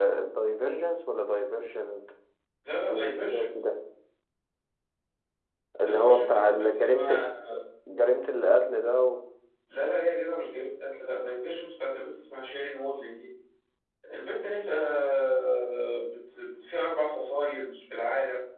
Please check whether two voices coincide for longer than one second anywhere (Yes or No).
Yes